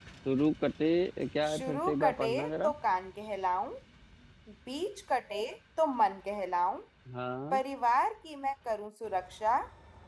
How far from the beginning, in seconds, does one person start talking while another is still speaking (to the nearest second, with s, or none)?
1 s